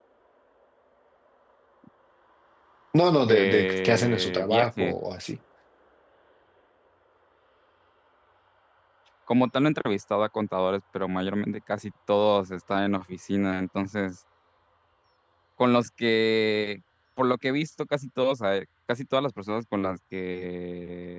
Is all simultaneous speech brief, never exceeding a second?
No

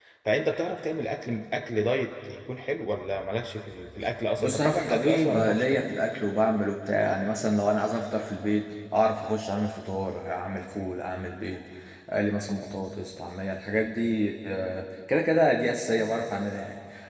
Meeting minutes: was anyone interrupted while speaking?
Yes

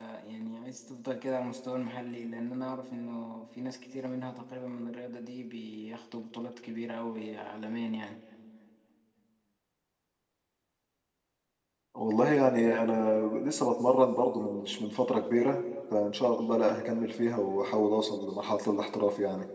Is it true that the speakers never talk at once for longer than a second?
Yes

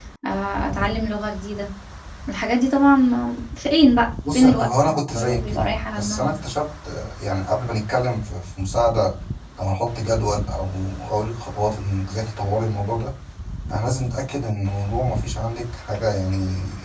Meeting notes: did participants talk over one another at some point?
Yes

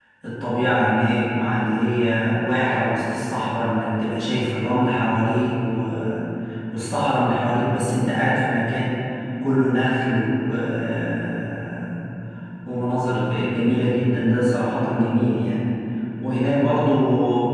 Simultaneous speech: No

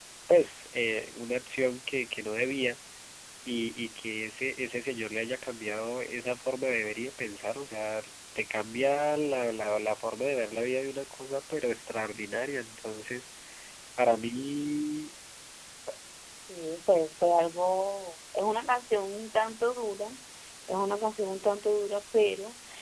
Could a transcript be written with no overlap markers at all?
Yes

